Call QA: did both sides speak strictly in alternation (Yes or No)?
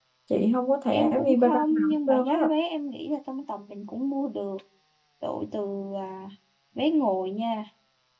No